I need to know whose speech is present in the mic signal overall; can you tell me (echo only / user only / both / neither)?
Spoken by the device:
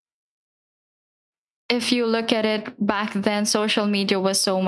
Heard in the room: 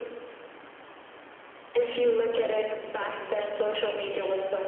echo only